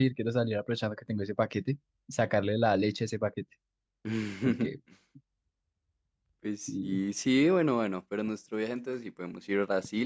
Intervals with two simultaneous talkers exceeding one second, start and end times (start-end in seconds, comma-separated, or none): none